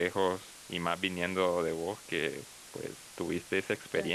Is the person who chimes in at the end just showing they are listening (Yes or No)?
No